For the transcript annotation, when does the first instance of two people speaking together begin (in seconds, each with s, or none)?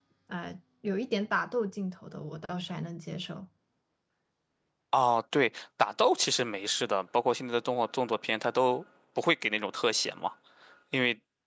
none